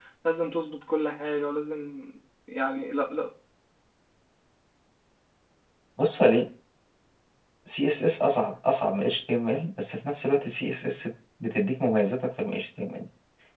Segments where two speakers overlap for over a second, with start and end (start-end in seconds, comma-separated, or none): none